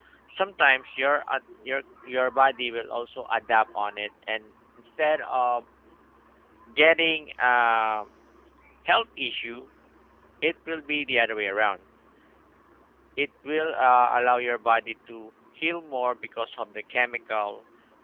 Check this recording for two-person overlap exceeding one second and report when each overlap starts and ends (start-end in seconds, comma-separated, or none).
none